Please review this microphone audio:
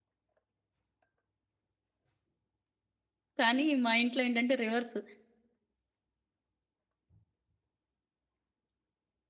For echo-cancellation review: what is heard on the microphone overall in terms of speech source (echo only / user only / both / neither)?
user only